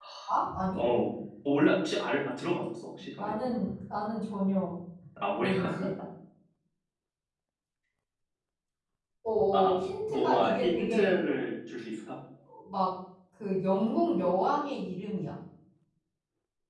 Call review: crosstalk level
present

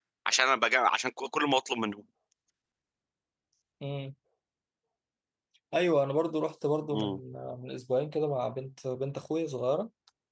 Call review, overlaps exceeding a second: none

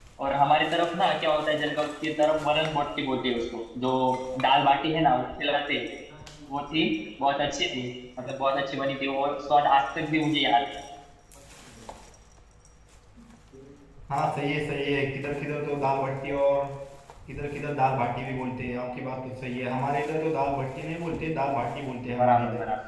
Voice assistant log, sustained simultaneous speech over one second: none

